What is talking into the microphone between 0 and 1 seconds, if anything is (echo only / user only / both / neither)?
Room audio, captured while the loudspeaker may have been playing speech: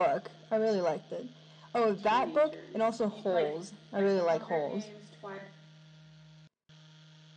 echo only